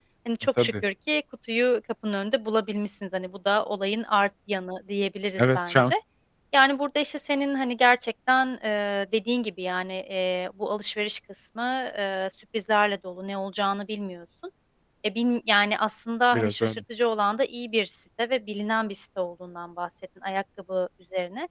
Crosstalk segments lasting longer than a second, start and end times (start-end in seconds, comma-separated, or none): none